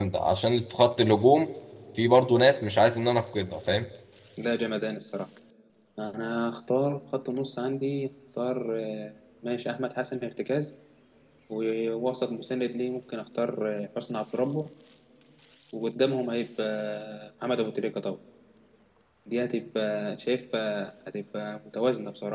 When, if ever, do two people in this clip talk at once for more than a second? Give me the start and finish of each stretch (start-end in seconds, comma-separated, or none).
none